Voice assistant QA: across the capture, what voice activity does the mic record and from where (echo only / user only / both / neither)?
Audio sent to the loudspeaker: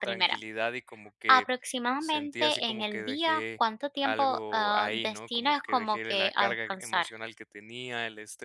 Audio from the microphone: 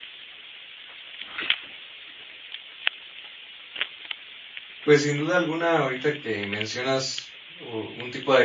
user only